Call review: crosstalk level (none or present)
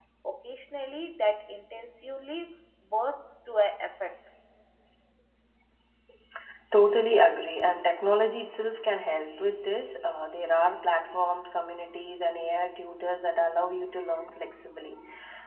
none